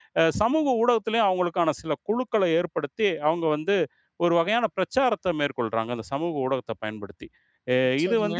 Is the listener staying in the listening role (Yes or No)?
Yes